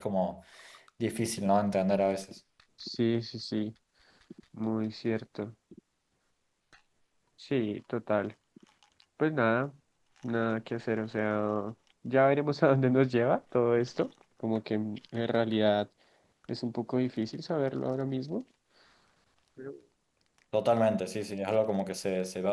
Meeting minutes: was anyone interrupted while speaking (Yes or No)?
No